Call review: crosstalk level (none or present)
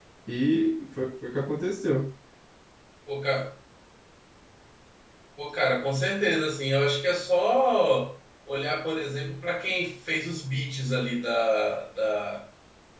none